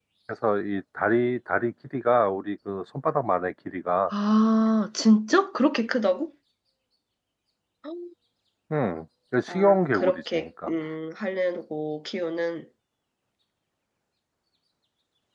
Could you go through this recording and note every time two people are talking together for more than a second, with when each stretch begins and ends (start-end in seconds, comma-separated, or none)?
9.5-10.7